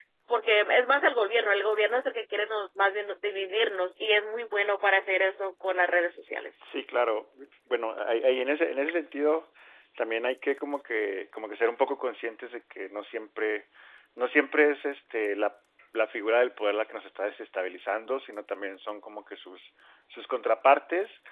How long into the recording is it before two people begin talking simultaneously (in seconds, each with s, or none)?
none